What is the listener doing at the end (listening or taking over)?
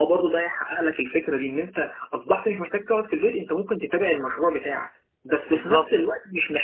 listening